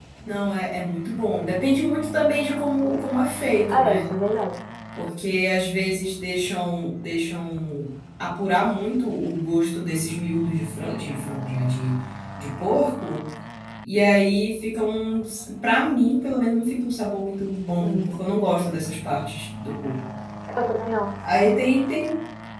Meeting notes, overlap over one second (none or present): none